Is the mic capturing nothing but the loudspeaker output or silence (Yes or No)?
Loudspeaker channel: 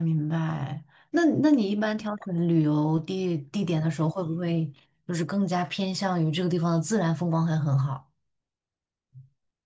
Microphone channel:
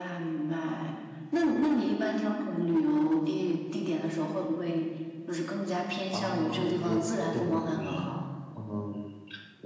No